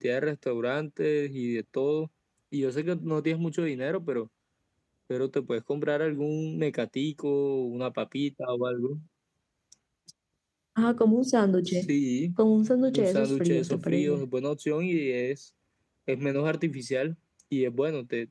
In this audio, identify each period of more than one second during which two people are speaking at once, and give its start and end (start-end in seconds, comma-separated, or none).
12.9-14.2